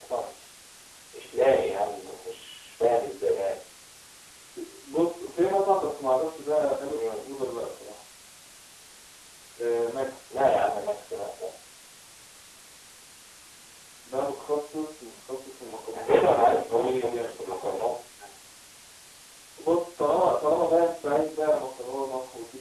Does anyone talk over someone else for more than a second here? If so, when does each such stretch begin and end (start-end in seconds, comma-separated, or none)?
15.9-17.2